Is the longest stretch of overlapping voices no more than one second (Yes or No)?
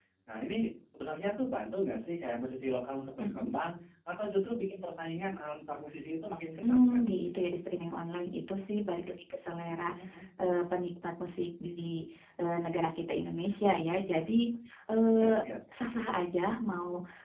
Yes